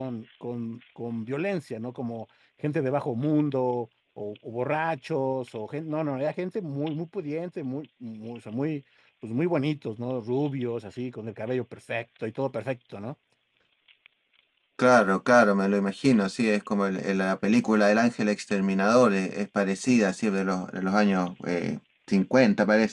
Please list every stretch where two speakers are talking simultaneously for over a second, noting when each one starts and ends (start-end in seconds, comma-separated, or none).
none